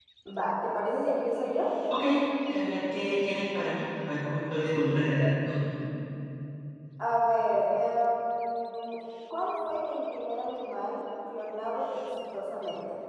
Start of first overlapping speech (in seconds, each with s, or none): none